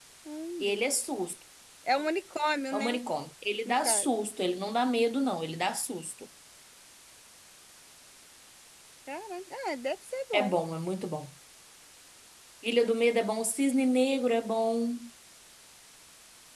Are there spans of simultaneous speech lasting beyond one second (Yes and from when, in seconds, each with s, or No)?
No